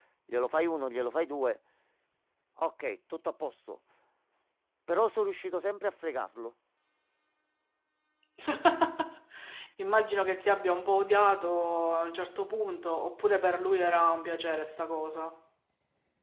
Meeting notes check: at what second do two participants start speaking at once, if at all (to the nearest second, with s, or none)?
none